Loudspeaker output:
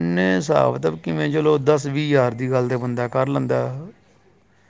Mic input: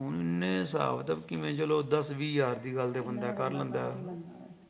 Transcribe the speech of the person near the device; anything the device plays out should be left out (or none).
ਇਹਨਾਂ ਦਾ ਬੰਦਾ ਕਾਰ ਹੀ ਲੈਂਂਦਾ